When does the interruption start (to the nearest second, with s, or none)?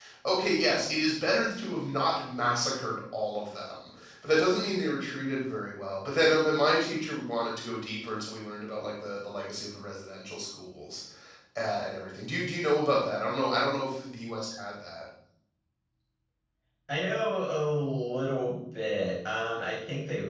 none